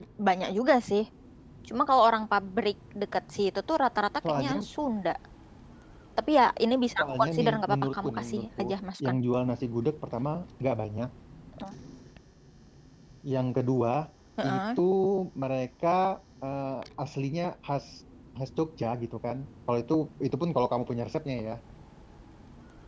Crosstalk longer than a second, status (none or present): present